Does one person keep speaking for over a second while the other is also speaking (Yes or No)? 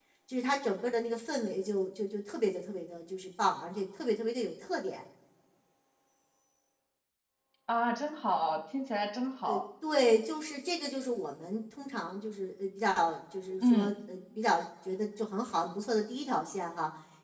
No